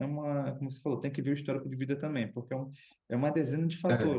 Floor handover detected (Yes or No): No